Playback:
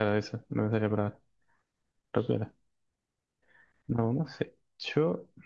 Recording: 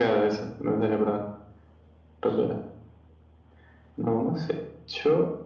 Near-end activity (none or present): none